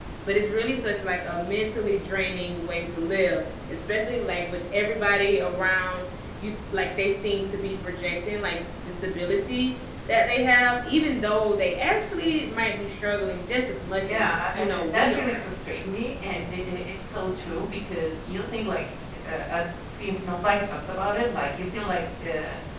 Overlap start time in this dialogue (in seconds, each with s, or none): 14.0 s